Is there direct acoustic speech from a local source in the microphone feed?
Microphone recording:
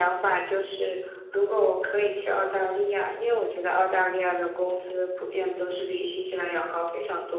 No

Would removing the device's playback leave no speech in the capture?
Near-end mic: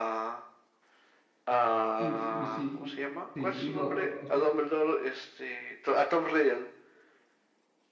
No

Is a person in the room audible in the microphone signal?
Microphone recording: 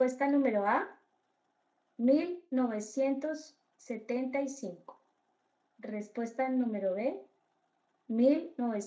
Yes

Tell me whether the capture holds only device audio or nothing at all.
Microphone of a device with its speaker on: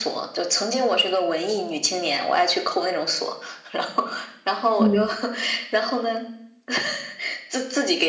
No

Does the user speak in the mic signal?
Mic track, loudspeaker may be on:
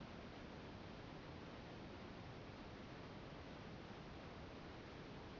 No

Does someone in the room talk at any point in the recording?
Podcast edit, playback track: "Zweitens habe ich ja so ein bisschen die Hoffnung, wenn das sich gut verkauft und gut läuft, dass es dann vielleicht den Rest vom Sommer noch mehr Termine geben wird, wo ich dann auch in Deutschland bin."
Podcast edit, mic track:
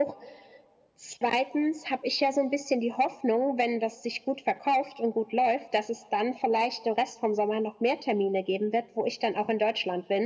No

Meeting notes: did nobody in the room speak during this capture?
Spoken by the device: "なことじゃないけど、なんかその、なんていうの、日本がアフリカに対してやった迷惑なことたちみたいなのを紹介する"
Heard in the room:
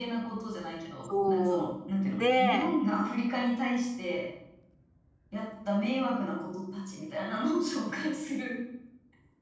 No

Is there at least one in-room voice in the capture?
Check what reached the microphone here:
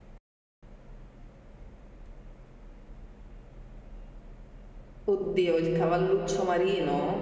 Yes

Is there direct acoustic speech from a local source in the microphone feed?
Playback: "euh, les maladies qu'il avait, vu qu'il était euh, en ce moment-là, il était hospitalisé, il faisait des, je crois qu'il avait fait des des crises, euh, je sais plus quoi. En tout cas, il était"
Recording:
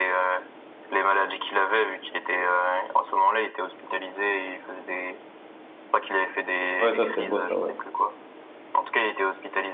Yes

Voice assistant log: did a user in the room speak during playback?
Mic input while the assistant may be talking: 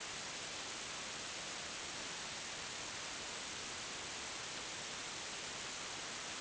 No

